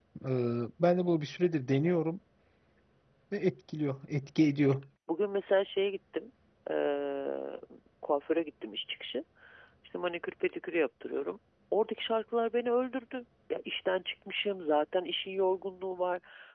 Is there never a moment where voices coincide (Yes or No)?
Yes